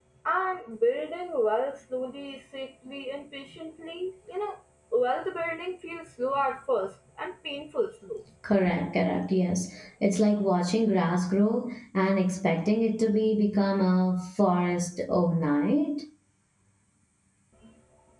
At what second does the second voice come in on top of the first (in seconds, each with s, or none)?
none